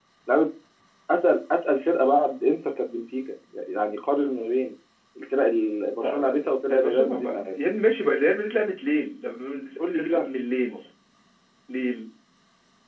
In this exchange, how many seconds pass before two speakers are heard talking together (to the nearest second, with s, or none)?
6 s